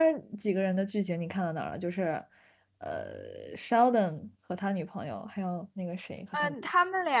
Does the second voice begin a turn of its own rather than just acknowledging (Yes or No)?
Yes